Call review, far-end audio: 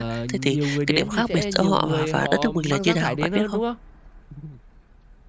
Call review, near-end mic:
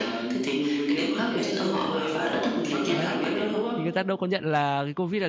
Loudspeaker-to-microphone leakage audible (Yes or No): Yes